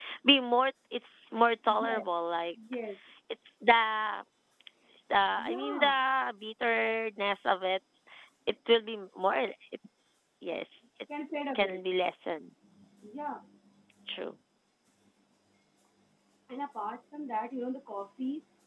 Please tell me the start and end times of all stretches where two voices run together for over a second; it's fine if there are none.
none

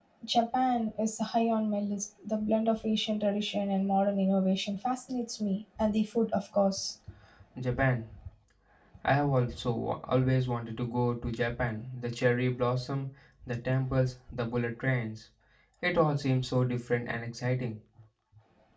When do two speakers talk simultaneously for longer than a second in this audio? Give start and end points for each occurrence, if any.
none

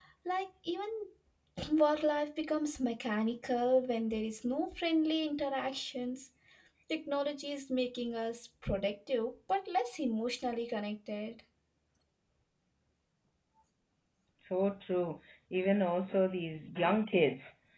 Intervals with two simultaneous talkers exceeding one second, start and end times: none

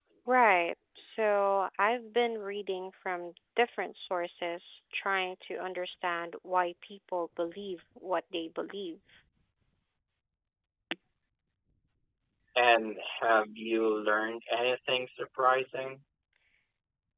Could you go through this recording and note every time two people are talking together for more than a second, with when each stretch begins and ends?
none

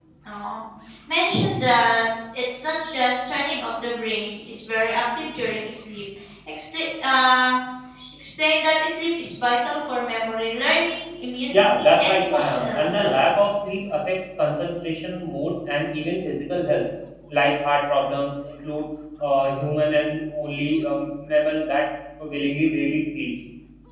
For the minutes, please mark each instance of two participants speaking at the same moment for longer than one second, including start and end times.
11.5-13.2

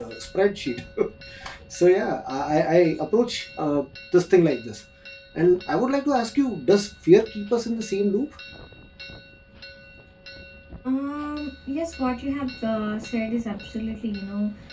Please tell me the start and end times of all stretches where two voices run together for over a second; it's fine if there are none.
none

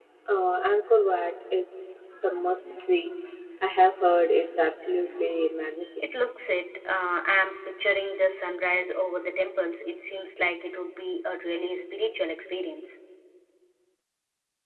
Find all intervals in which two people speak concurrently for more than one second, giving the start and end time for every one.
none

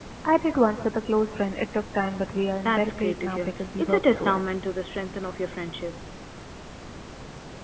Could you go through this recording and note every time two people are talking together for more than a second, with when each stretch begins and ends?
2.6-4.5

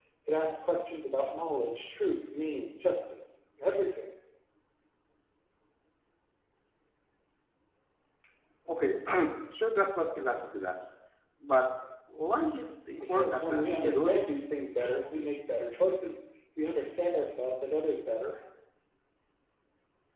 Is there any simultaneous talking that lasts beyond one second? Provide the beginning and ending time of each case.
13.0-14.5

